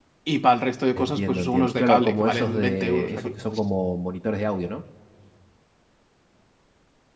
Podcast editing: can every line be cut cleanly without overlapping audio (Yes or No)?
No